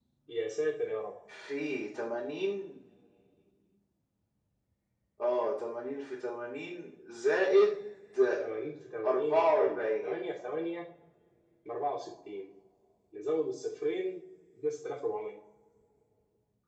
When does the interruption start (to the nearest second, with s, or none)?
9 s